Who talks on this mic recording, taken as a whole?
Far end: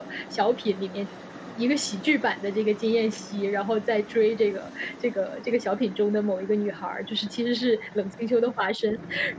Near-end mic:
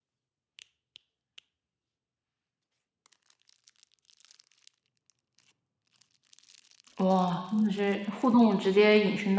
user only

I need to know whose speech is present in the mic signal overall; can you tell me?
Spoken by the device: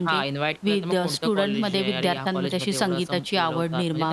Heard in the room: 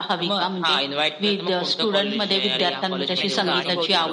both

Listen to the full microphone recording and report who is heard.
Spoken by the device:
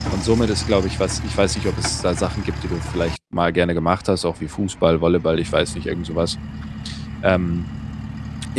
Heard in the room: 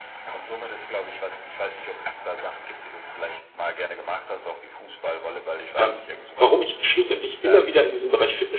both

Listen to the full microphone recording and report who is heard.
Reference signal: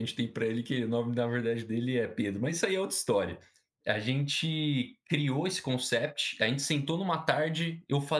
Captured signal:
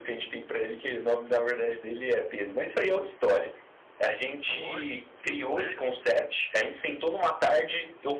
both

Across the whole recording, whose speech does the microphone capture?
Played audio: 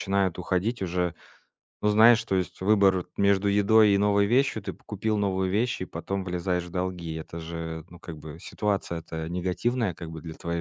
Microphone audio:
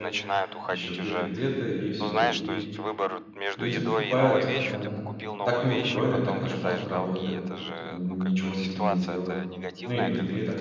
both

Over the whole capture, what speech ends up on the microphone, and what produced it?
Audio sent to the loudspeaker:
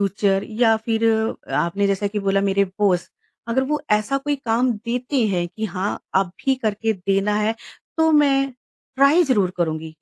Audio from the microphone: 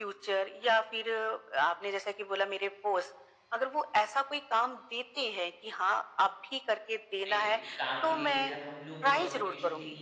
both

